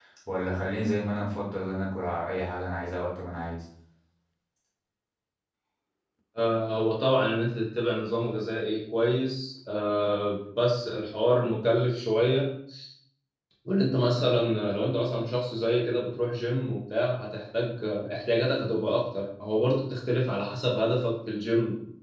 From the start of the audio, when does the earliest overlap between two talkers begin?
none

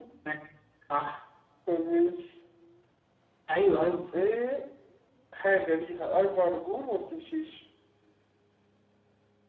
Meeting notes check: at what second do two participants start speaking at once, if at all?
none

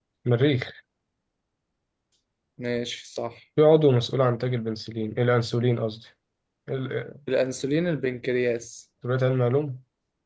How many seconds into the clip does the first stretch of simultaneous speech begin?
none

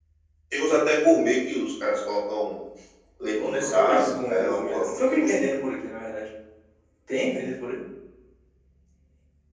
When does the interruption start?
3.4 s

